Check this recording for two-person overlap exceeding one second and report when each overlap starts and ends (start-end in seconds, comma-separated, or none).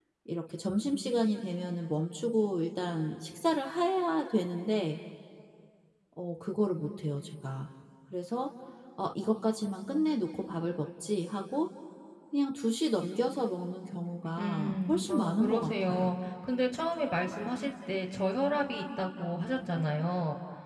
14.4-16.1